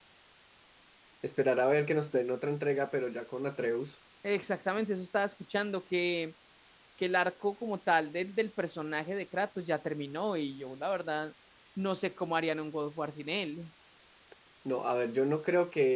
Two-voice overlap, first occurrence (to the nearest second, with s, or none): none